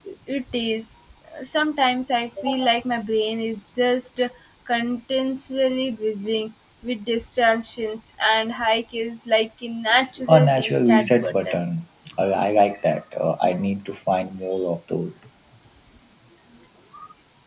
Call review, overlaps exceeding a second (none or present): present